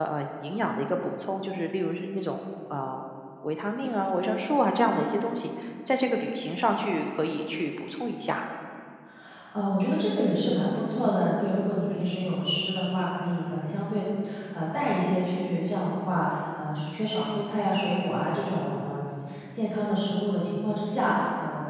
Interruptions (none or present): none